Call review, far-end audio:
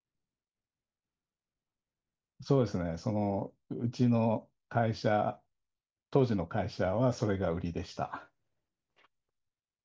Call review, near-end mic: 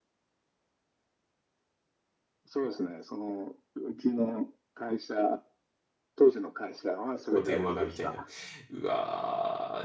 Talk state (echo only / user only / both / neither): both